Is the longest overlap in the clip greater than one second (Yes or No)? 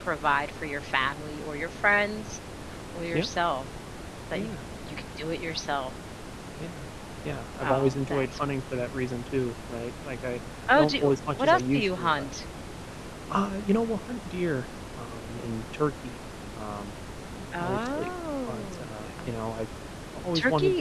Yes